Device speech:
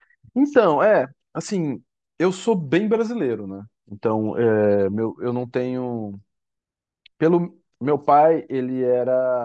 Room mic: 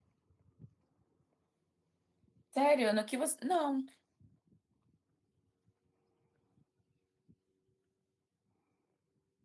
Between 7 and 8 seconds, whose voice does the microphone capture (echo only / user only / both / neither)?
neither